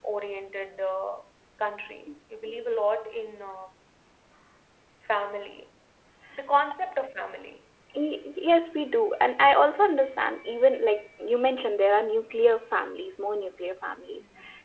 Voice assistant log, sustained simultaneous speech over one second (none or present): none